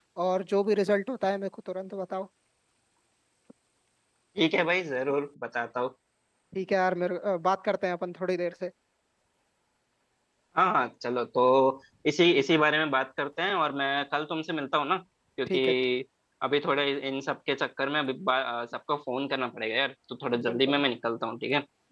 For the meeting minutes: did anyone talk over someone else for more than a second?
No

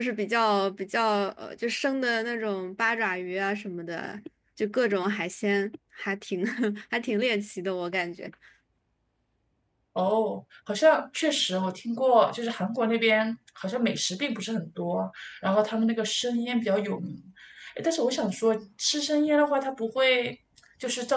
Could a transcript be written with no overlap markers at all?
Yes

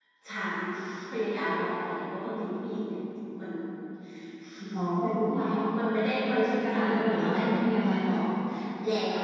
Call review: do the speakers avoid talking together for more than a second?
No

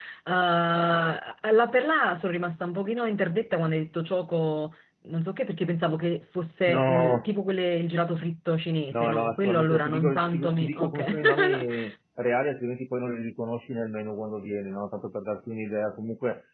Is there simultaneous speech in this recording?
Yes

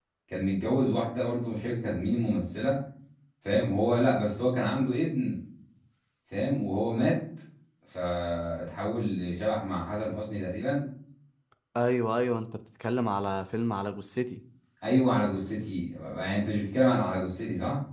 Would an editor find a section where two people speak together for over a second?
No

